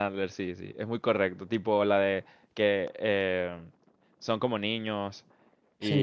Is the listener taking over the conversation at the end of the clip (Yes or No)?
No